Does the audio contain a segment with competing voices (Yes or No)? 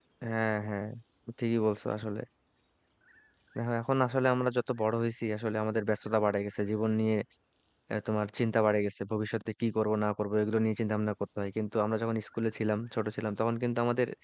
No